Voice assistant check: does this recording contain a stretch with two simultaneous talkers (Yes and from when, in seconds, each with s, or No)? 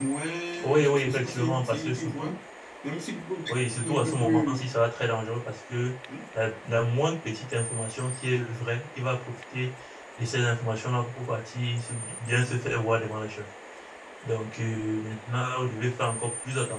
Yes, from 0.8 s